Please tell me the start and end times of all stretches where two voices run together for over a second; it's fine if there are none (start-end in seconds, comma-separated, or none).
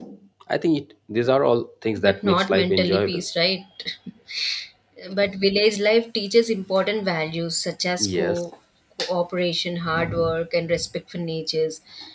2.0-3.2